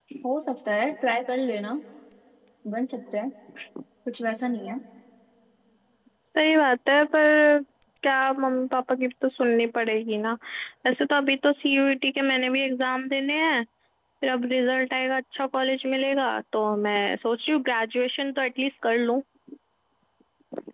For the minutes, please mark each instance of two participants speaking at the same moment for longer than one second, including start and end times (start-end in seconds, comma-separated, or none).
none